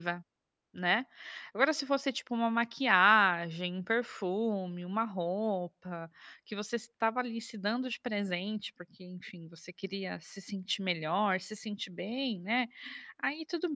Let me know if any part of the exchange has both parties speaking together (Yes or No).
No